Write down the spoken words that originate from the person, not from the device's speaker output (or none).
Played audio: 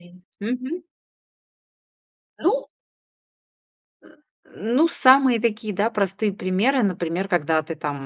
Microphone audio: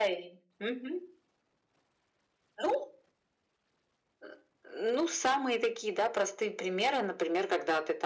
none